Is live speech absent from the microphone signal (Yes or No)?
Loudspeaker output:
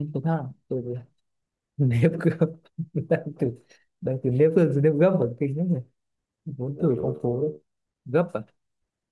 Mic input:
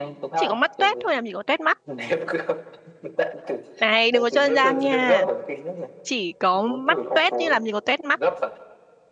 No